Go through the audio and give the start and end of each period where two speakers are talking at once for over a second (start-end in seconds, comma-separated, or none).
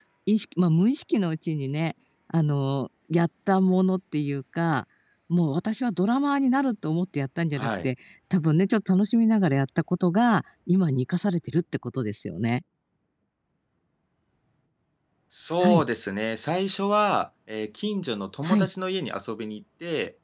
none